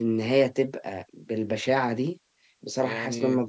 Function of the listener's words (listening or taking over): listening